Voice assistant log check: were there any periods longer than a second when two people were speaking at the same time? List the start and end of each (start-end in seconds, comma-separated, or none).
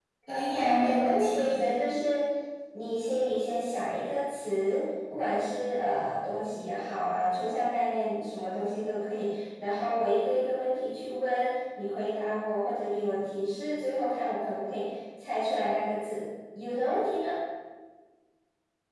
0.5-1.8